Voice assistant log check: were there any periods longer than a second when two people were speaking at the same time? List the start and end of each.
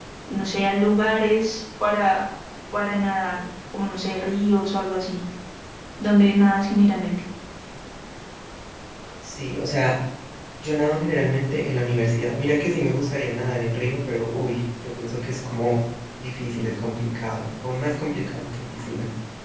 none

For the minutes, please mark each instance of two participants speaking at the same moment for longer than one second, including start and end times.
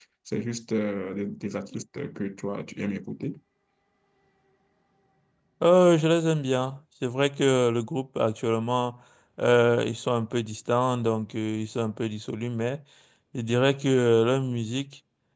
none

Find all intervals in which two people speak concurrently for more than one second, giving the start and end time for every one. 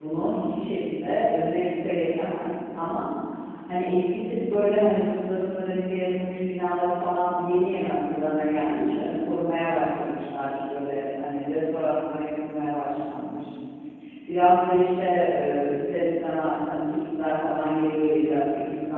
none

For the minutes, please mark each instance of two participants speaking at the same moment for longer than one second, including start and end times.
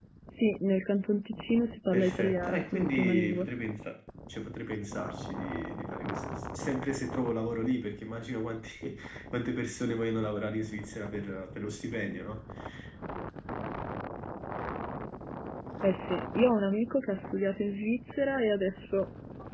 1.9-3.5

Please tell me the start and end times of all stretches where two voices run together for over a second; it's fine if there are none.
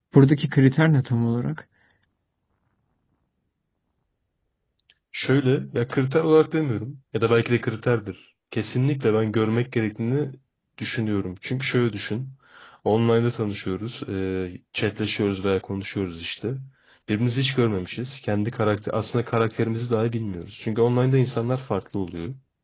none

